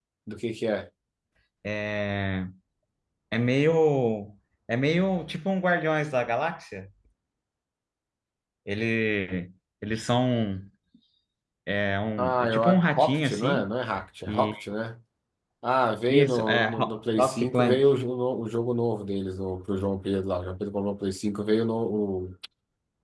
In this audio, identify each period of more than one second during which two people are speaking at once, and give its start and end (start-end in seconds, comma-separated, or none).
12.2-13.7, 16.1-17.9